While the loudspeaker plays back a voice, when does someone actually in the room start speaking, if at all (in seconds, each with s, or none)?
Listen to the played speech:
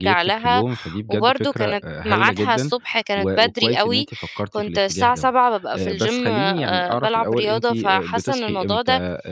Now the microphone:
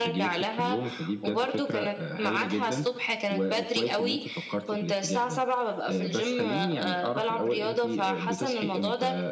none